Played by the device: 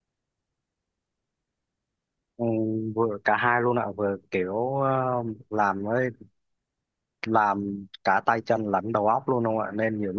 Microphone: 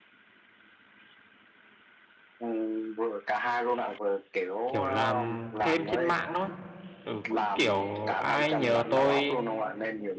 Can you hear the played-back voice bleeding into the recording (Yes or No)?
Yes